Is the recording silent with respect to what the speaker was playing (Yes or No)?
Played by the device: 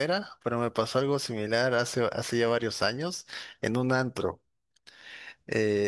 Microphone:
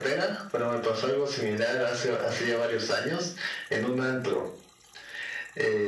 No